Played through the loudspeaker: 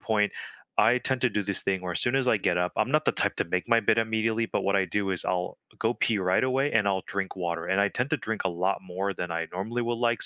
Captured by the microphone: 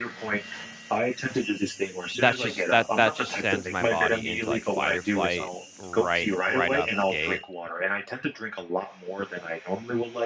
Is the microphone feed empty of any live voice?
No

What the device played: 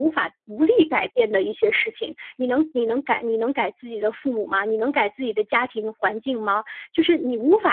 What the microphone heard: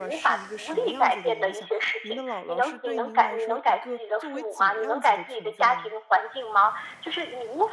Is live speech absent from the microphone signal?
No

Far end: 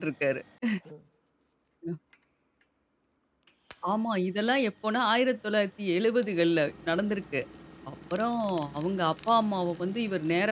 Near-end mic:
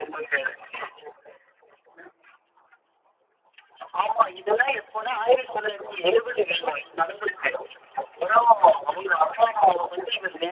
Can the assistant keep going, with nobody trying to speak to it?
Yes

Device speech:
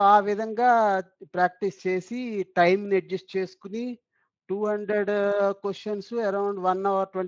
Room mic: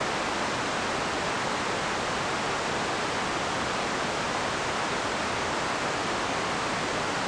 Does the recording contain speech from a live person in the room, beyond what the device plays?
No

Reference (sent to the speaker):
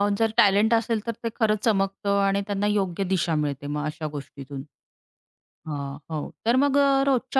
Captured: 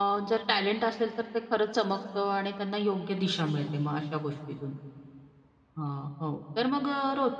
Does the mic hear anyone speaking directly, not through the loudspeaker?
No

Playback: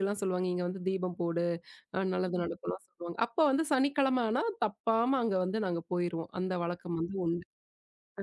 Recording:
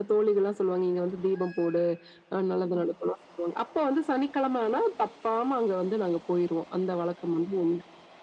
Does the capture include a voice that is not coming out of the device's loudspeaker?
No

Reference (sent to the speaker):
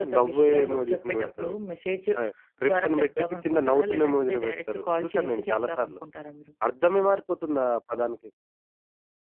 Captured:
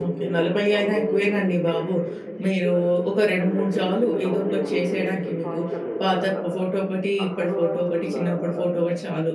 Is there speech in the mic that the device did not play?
Yes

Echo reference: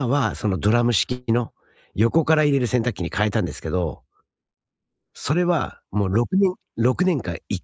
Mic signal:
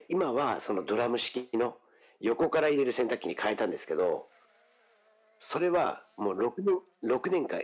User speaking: No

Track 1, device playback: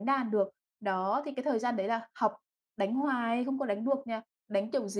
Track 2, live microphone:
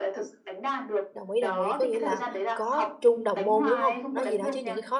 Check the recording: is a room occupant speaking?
Yes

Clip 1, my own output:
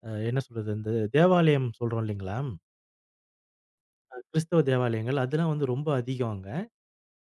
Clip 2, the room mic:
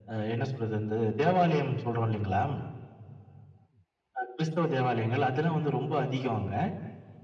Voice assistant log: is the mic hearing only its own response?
Yes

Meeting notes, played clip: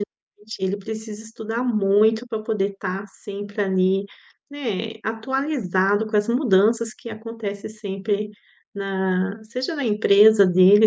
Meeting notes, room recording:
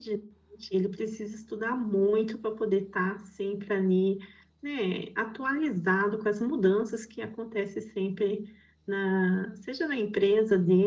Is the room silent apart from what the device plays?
Yes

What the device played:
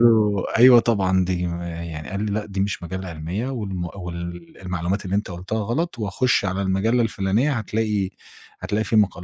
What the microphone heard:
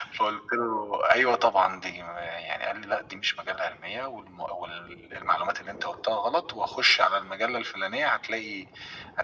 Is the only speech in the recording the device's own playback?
Yes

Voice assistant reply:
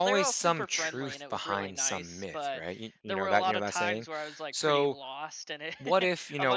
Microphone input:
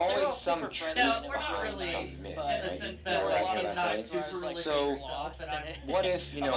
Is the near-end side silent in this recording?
No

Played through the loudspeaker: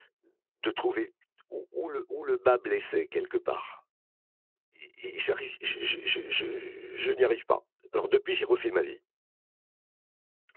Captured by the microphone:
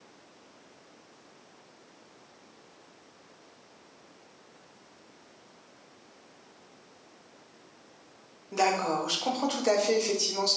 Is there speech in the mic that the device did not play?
Yes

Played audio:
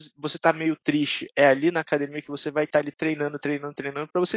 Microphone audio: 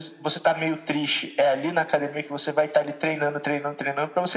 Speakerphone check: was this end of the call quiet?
Yes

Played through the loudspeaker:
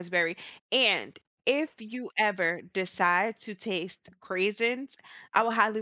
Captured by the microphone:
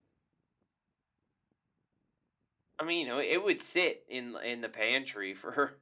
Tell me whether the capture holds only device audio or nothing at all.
No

